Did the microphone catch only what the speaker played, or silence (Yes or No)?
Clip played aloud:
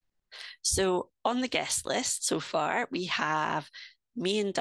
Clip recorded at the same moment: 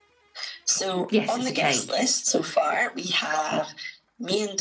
No